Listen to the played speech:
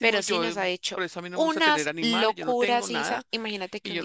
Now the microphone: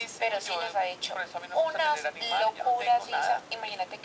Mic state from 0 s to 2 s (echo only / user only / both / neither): echo only